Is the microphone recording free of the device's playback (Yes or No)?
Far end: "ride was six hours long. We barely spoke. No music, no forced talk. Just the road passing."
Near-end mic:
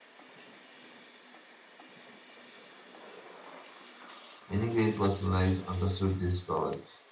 Yes